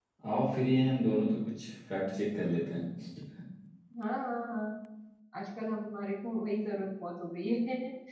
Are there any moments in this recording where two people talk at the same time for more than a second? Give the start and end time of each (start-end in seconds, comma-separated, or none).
none